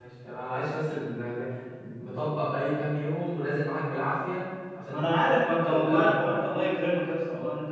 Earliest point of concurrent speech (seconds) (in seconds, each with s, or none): 4.9 s